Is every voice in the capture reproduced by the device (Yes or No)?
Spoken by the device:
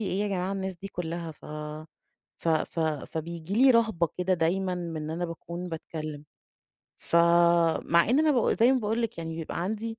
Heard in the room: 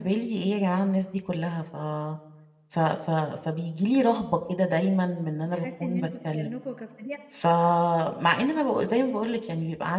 No